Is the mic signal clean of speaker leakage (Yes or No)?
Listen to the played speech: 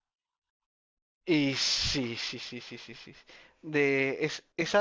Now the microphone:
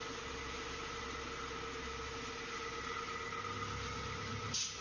Yes